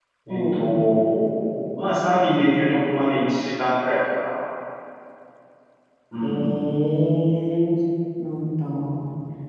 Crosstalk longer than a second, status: none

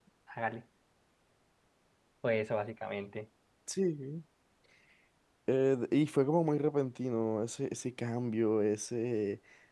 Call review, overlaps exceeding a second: none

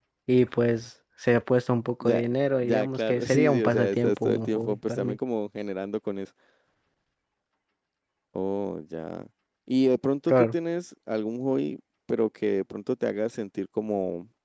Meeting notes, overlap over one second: present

